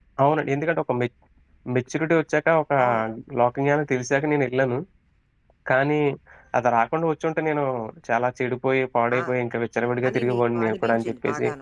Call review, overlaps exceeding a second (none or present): present